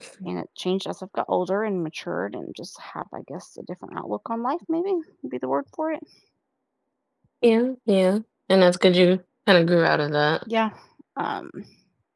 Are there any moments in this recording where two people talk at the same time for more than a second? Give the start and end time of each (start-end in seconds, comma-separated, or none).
none